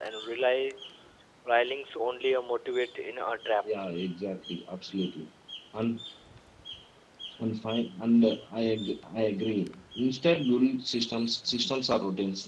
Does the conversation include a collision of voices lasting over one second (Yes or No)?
No